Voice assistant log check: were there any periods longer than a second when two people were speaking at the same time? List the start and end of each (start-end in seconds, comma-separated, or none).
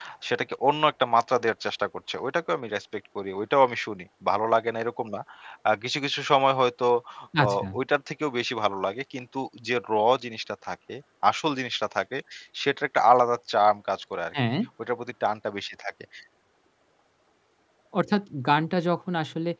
none